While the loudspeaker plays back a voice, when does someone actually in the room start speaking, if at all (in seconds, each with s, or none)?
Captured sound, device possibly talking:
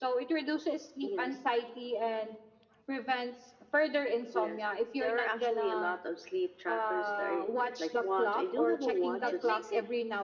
9.2 s